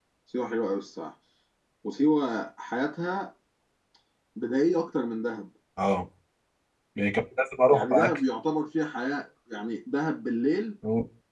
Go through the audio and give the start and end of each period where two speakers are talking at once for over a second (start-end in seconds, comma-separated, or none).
none